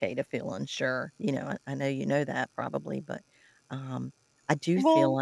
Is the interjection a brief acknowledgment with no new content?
Yes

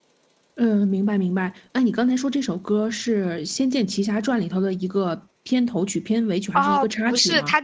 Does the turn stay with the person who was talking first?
No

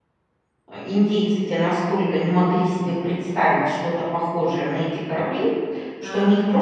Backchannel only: Yes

